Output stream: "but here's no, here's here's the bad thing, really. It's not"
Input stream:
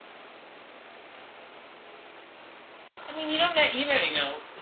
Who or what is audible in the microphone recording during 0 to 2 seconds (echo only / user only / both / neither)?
neither